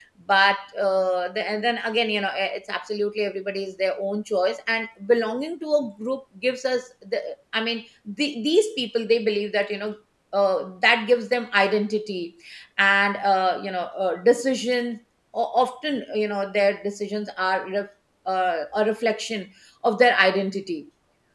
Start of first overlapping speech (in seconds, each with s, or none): none